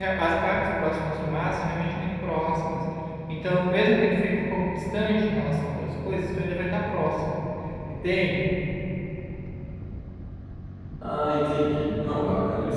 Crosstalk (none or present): none